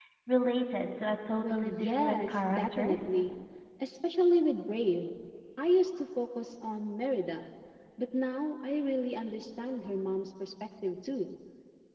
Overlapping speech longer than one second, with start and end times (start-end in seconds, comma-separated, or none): 1.3-2.9